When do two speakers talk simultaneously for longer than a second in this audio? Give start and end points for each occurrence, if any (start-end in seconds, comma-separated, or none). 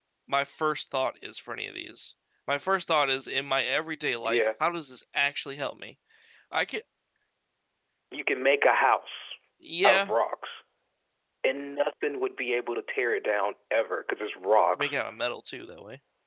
none